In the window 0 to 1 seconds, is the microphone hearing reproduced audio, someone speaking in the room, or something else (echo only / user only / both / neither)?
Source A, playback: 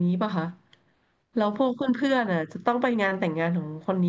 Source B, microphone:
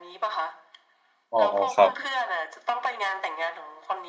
echo only